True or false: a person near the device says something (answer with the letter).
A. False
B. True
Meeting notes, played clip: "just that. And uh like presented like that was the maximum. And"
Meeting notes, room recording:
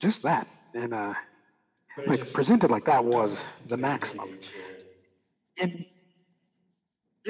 B